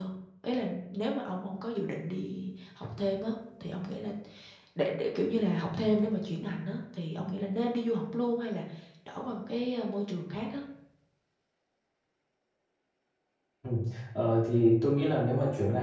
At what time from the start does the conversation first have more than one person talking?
none

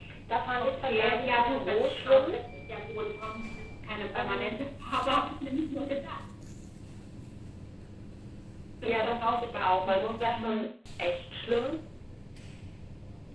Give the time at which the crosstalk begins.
0.6 s

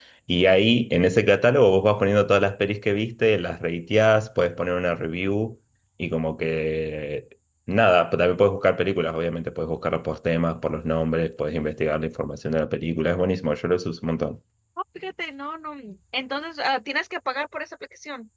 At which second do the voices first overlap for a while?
none

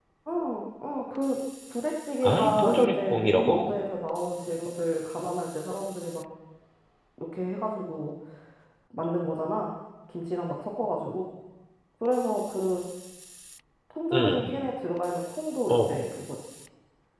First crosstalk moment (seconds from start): 2.2 s

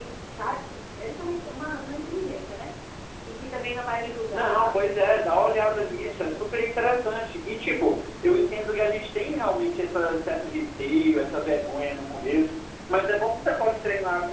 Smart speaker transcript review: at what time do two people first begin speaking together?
4.3 s

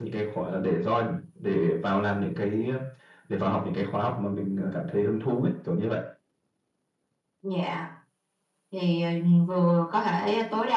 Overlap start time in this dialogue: none

